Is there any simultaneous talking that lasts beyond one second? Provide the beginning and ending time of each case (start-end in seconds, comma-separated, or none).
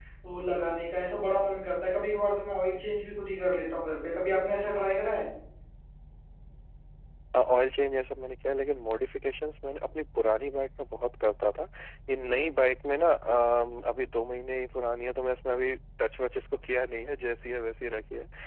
none